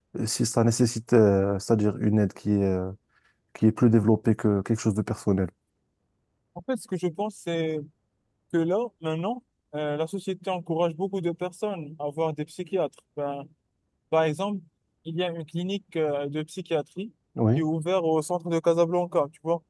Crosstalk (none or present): none